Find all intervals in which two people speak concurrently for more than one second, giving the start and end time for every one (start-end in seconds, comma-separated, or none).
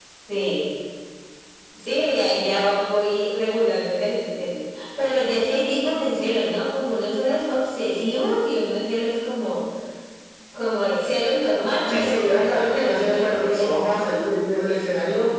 11.9-13.7